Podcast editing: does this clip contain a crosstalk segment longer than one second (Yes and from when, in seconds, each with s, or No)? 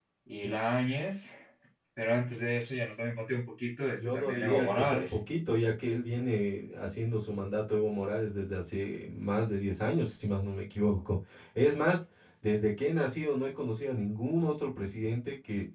Yes, from 3.9 s